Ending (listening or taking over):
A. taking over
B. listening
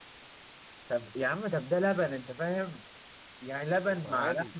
B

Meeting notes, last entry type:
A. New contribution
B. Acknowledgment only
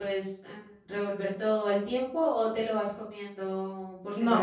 A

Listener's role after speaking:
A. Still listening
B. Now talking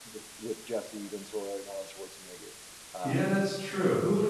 B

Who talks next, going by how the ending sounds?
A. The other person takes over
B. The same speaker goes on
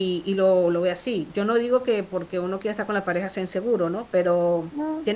B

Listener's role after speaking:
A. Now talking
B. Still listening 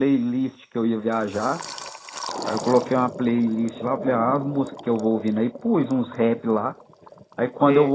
B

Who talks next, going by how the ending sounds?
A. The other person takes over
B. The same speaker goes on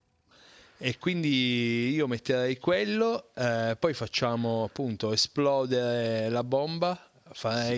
A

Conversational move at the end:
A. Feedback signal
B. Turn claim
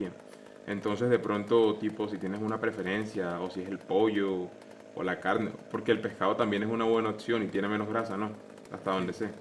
B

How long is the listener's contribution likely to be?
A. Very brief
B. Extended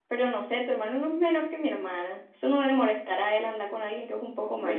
B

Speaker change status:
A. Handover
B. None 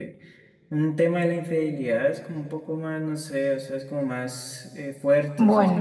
B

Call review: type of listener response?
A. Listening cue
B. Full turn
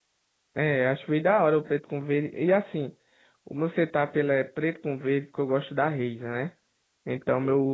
A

